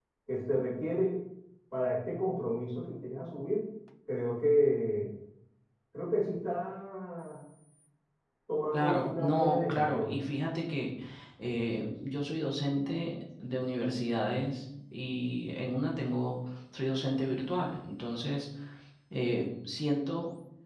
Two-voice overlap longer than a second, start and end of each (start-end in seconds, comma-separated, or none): 8.7-10.2